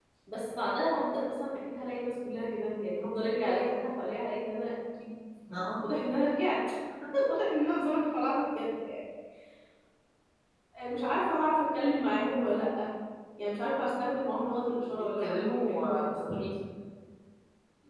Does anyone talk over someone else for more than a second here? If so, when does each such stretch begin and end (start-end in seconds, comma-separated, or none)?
14.9-16.5